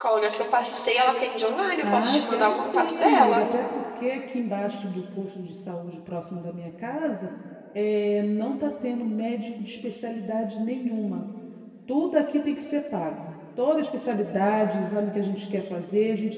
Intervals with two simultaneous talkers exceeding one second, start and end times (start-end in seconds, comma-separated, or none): 1.8-3.4